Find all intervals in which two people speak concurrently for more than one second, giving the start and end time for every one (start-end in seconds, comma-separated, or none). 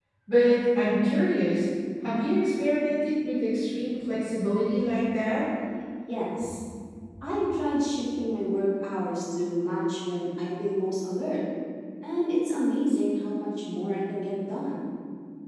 none